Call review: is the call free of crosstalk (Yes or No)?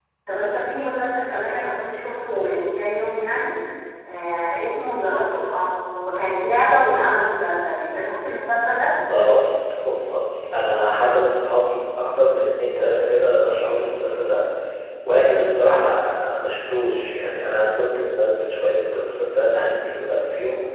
Yes